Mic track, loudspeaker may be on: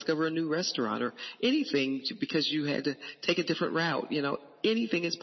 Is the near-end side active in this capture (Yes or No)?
No